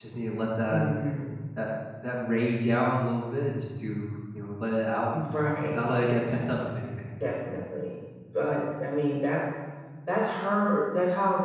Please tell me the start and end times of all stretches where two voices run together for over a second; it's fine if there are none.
none

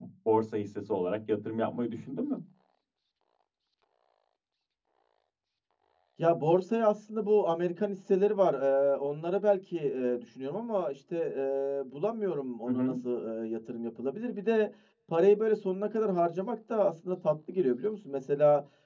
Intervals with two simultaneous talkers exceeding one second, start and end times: none

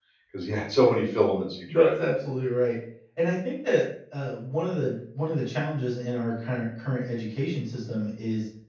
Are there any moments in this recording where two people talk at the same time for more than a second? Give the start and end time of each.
none

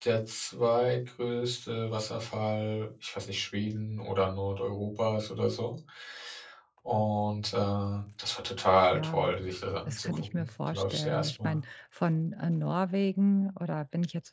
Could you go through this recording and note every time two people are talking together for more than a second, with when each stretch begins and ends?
9.9-11.6

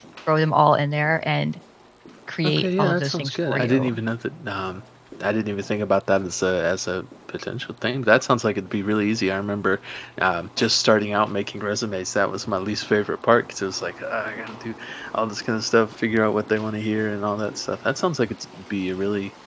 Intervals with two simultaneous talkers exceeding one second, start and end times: 2.4-3.9

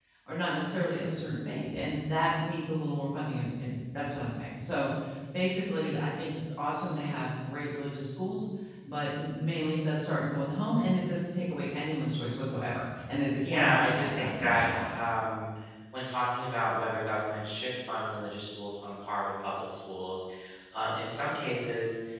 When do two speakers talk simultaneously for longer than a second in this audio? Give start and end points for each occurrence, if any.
13.4-15.0

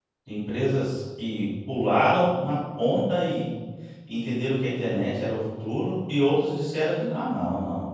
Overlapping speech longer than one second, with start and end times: none

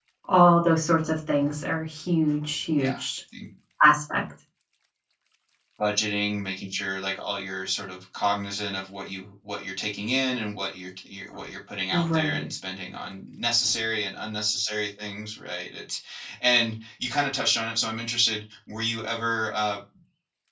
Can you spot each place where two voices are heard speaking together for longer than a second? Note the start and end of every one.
none

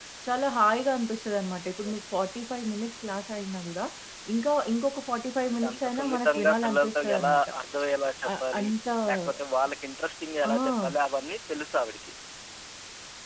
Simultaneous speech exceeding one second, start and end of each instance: 5.5-7.4

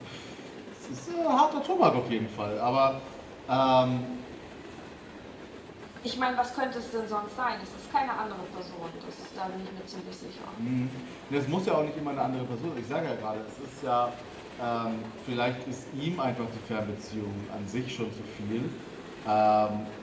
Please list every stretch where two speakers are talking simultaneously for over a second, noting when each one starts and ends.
none

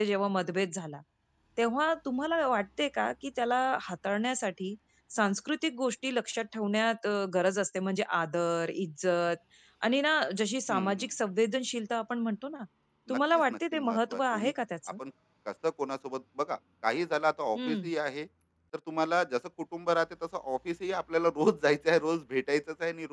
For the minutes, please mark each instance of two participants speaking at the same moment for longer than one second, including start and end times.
13.1-14.5

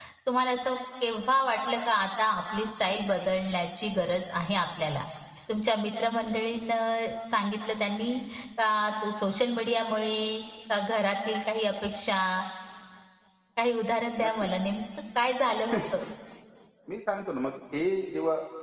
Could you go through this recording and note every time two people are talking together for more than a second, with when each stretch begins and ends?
none

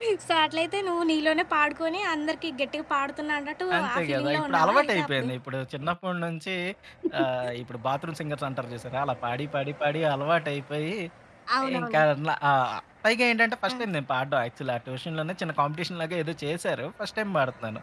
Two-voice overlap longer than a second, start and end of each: 3.8-5.3

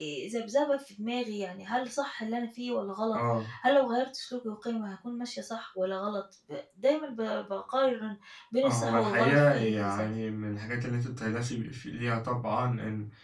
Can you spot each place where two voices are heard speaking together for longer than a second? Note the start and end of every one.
8.6-10.1

